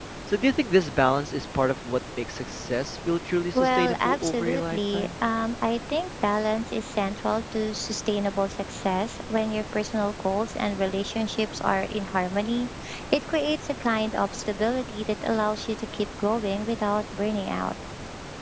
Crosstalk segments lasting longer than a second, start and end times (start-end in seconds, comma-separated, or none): 3.5-5.1